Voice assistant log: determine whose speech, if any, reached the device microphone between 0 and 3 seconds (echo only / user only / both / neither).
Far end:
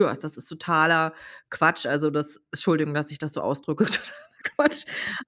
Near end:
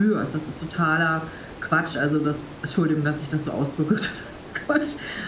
echo only